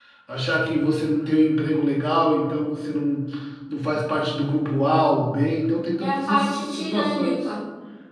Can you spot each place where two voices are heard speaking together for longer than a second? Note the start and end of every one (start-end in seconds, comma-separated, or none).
6.0-7.5